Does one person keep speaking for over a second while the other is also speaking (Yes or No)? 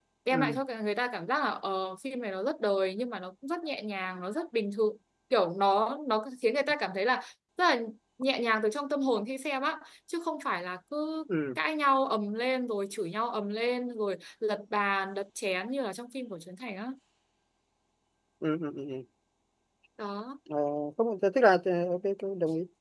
No